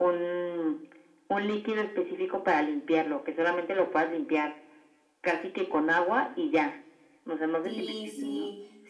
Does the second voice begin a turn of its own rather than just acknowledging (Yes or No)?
Yes